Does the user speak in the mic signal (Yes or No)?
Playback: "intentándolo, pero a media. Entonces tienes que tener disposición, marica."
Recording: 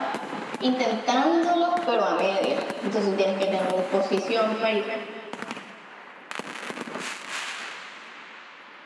No